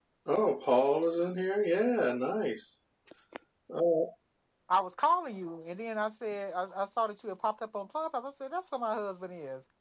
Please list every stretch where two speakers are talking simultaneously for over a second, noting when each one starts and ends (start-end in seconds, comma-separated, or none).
none